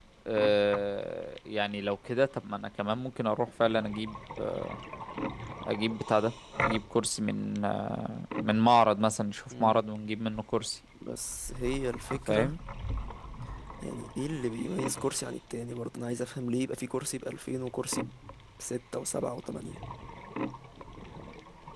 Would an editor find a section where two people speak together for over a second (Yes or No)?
No